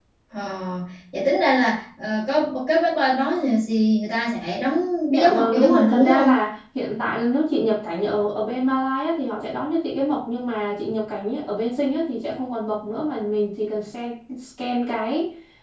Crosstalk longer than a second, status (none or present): present